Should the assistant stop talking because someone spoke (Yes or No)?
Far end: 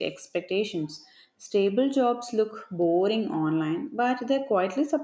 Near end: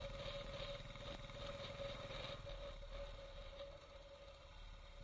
No